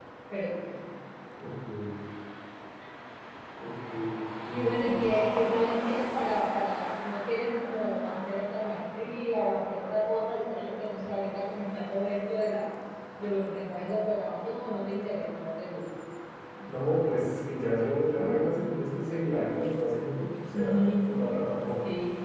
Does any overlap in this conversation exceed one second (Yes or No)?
No